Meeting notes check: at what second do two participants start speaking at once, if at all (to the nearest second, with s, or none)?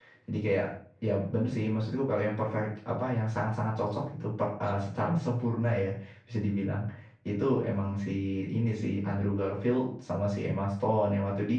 none